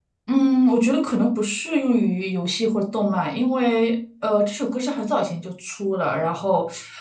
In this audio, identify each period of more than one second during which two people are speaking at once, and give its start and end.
none

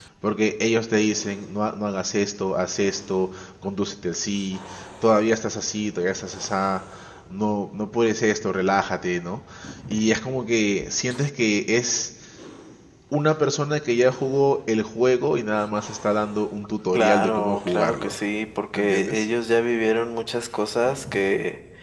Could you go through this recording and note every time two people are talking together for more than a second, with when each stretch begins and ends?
16.9-18.2

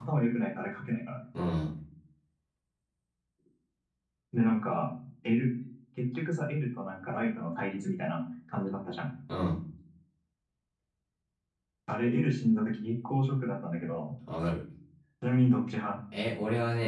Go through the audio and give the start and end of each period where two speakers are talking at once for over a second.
none

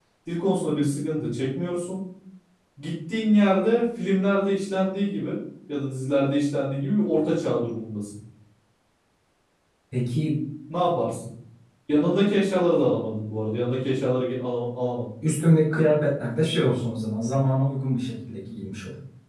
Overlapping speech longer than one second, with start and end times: none

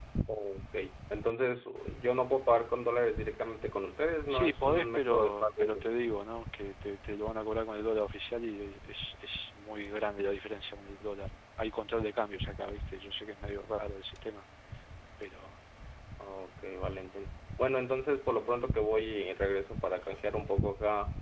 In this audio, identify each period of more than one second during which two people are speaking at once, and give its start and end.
4.3-5.7

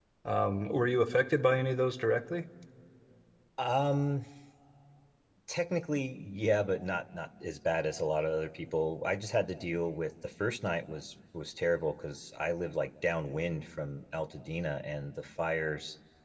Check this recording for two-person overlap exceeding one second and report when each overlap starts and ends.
none

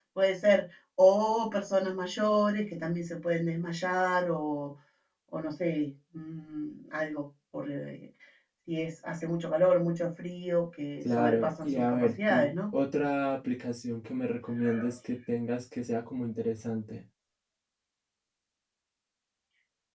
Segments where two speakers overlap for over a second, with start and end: 11.2-12.5

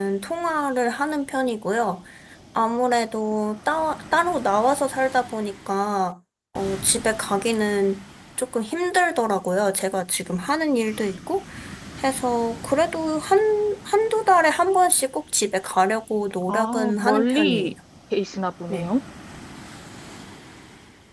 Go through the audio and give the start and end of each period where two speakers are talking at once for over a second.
16.5-17.7

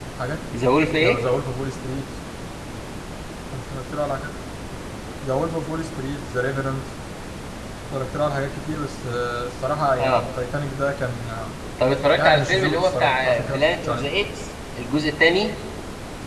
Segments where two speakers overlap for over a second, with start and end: 12.1-14.1

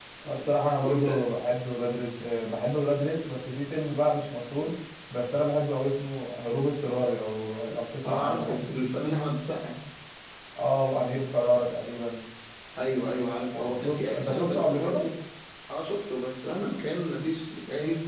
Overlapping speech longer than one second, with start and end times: 13.5-15.0

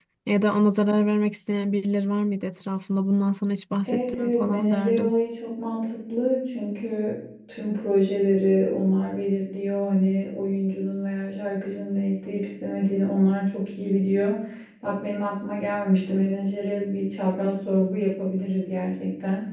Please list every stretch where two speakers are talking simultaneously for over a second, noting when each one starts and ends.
3.9-5.2

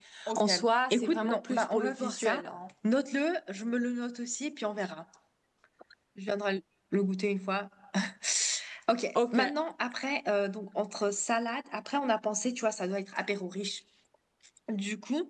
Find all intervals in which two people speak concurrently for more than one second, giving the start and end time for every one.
0.9-2.4

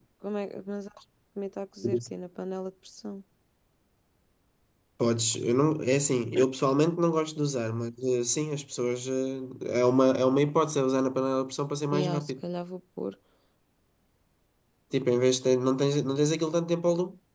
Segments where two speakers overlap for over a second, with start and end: none

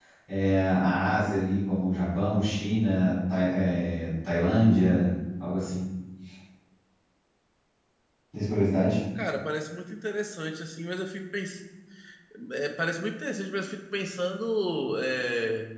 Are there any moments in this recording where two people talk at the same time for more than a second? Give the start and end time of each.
none

